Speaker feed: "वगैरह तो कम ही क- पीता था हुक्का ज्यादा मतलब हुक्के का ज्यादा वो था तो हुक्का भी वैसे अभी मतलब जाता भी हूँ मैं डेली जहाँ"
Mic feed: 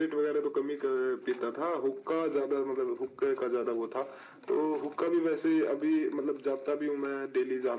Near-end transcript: none

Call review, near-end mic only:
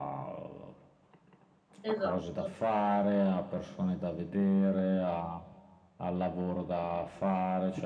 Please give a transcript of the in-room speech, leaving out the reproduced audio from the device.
Esatto,

